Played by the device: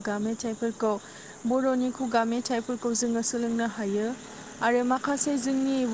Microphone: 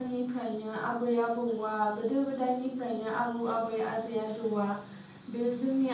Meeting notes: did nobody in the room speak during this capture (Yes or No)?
No